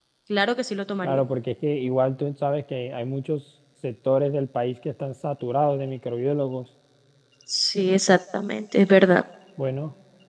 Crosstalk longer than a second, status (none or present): none